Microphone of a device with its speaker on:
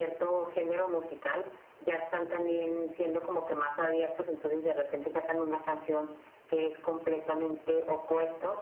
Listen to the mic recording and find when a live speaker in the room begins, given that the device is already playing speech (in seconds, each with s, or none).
none